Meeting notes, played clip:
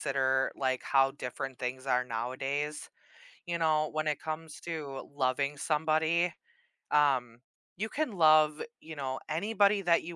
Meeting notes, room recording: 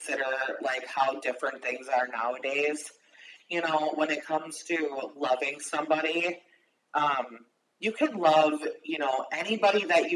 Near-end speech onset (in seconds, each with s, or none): none